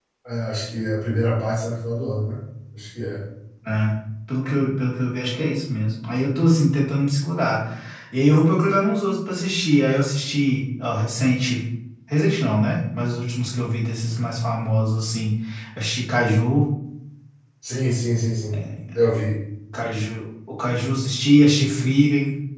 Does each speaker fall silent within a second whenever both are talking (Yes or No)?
Yes